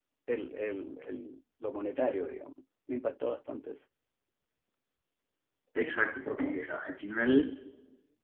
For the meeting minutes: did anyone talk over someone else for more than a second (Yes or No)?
No